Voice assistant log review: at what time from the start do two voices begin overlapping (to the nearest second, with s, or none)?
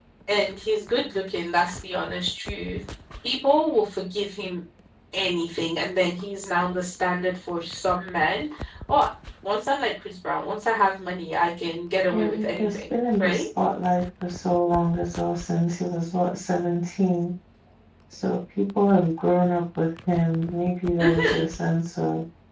12 s